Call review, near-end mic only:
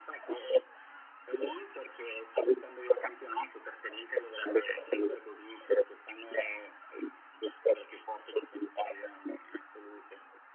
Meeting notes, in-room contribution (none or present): none